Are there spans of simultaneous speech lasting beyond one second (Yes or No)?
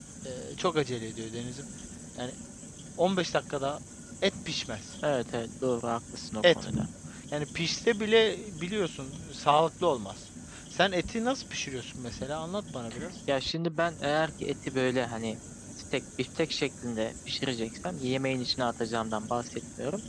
No